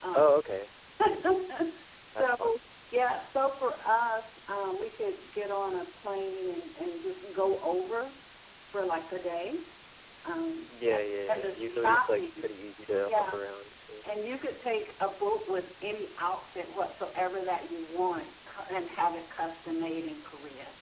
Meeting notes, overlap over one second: present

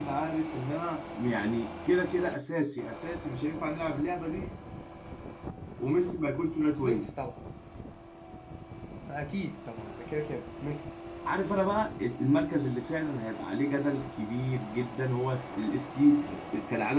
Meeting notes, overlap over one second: none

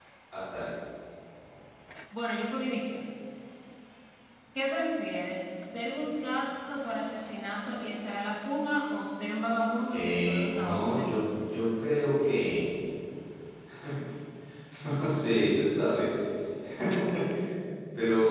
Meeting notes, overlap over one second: present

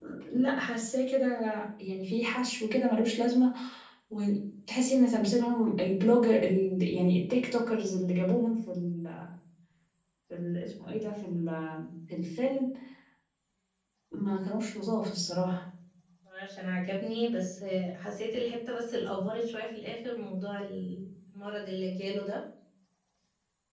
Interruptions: none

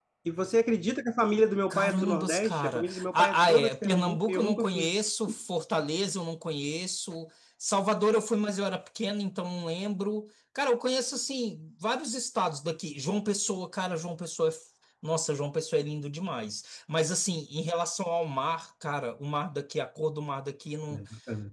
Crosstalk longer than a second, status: present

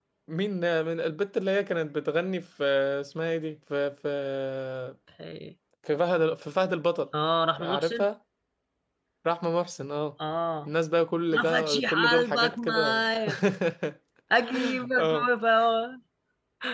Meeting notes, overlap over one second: present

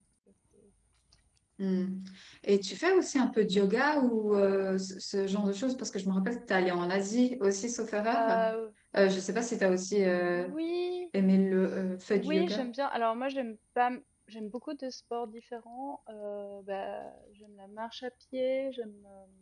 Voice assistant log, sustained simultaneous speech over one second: none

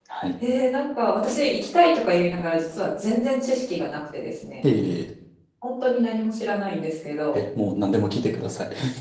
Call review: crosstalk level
none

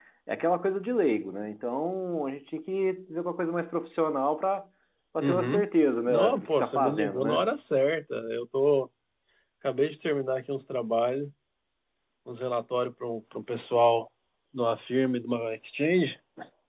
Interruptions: present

